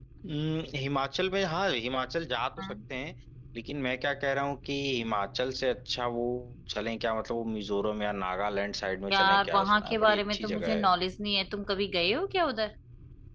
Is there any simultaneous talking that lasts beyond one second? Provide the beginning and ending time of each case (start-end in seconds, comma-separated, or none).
9.1-10.9